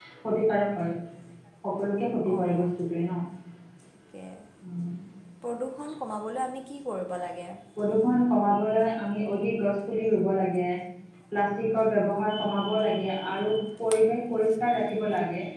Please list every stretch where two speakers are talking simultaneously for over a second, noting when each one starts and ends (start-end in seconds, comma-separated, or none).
none